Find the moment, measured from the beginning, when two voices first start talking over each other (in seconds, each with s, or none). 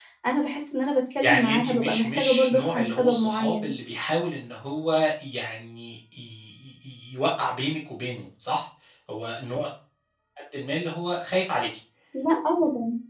1.2 s